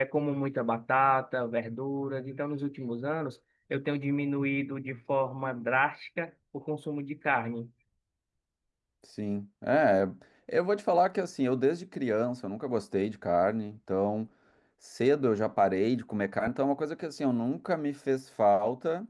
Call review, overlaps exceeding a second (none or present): none